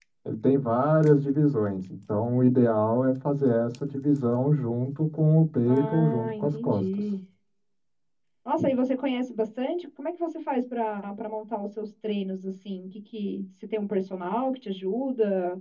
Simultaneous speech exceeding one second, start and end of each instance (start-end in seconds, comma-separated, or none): 5.7-7.1